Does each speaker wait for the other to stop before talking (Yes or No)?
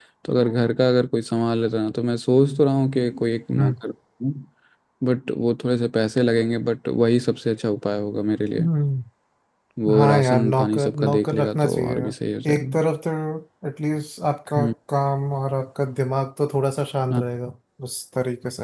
No